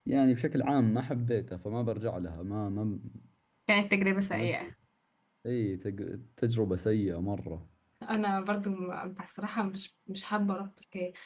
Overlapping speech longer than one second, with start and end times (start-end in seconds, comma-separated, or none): none